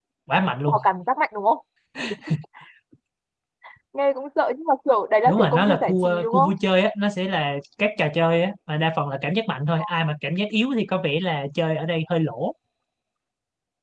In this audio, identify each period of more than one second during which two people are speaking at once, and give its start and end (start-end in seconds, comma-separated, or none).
5.2-6.5